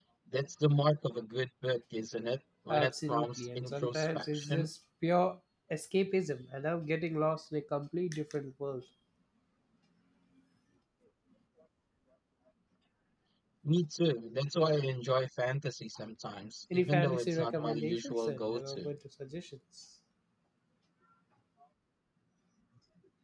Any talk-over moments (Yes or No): Yes